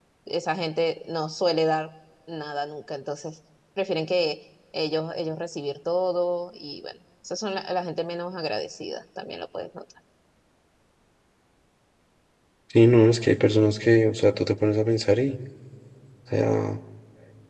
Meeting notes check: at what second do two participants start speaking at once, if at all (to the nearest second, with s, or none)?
none